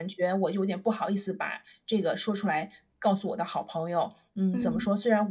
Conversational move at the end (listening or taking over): listening